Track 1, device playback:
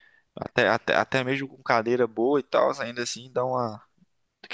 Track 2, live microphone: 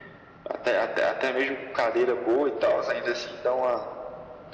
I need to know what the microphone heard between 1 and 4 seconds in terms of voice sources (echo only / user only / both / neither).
echo only